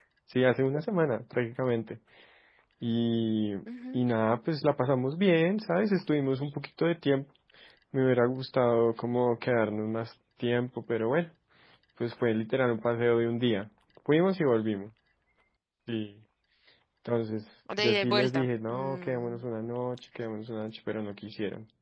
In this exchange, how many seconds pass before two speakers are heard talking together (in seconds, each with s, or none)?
17.8 s